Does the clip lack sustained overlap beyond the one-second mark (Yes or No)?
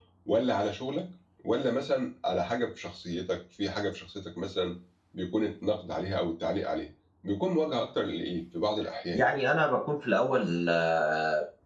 Yes